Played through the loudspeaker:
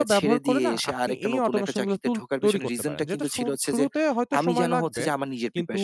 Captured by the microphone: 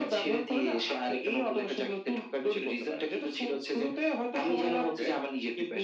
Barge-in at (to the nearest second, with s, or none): none